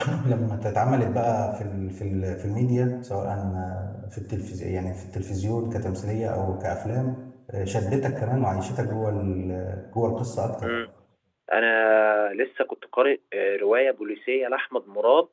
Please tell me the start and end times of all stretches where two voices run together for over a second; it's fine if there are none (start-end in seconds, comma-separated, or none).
none